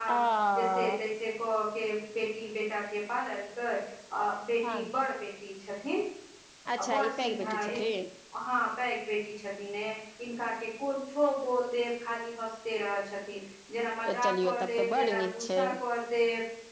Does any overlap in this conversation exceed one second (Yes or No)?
Yes